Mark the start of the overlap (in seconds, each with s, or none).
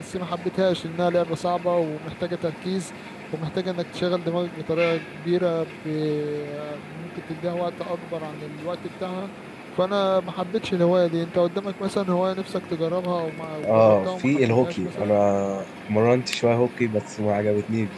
13.6 s